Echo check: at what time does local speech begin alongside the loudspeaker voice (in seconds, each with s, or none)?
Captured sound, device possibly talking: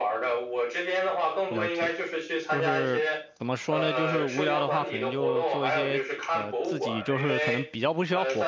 1.5 s